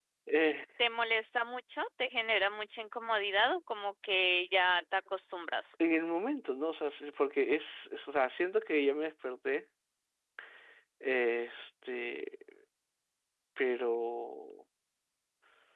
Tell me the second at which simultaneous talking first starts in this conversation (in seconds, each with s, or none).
none